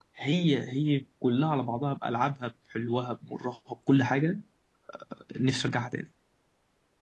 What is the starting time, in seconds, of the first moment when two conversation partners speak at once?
none

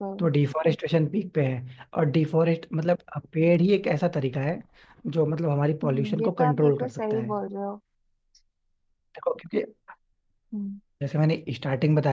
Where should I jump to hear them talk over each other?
5.8 s

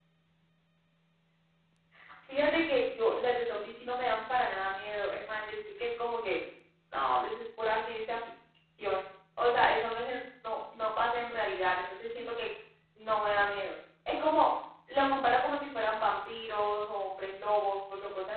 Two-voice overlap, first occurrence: none

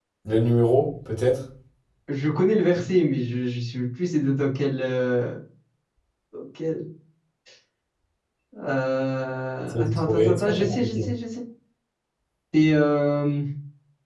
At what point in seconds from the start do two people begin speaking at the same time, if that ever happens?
9.7 s

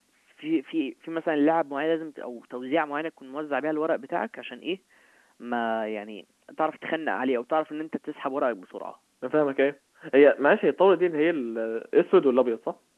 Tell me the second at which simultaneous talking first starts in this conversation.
none

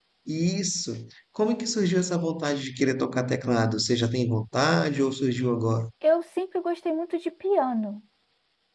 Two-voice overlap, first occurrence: none

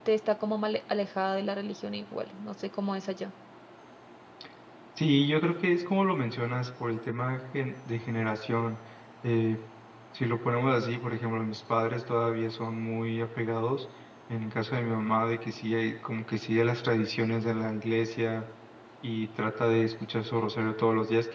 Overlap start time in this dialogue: none

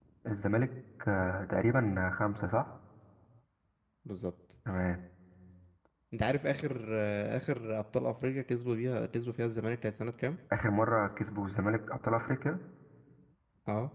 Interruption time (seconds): none

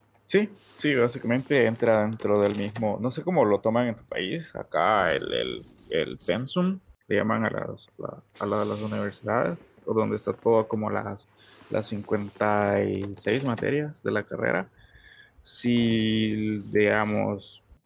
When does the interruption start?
none

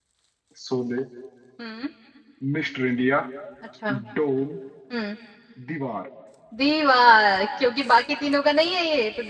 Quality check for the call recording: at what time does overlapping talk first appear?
none

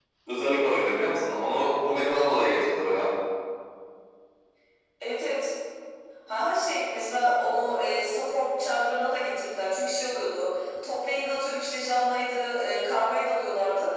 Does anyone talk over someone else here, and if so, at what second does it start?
none

